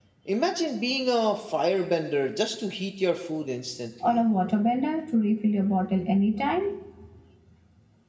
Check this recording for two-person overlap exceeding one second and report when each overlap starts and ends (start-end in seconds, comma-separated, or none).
none